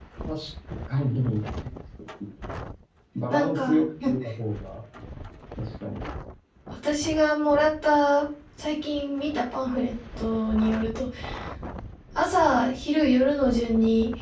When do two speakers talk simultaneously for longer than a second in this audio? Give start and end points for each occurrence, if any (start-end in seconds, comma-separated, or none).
none